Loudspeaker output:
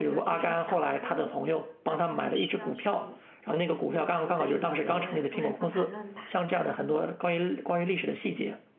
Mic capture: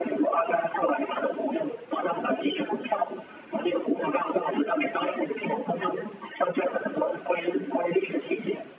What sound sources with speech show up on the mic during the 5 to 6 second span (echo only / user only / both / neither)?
echo only